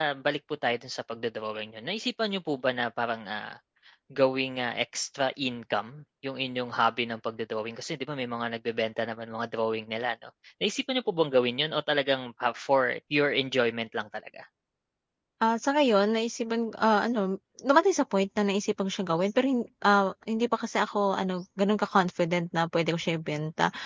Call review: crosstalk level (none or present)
none